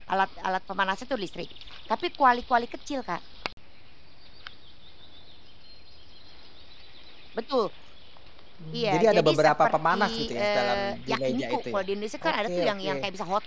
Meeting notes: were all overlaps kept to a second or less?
No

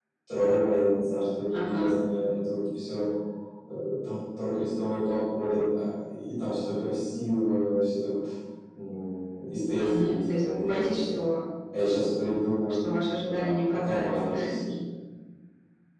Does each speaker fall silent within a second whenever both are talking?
No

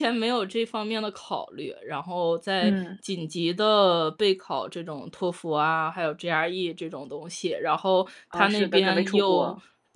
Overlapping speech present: Yes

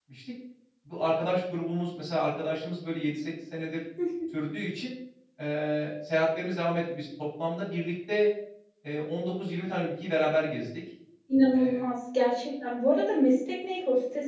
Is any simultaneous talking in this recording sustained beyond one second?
No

